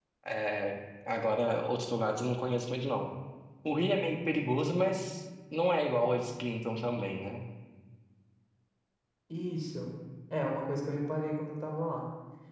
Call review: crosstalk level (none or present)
none